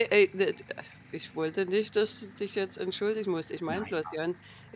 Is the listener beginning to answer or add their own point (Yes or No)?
No